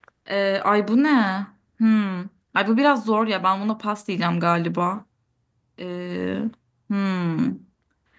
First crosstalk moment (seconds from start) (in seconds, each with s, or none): none